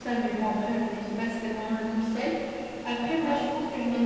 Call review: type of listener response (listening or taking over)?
listening